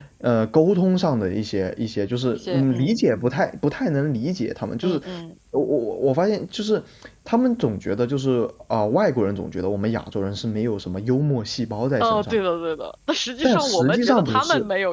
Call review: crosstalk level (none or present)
present